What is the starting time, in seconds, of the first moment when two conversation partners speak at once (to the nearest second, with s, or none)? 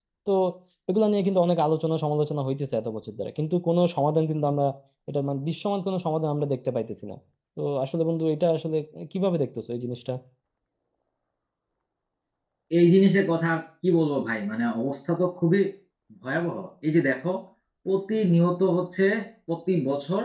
none